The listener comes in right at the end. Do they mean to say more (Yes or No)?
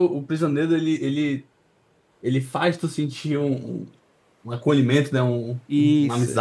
Yes